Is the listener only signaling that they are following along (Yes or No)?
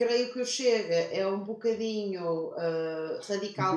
No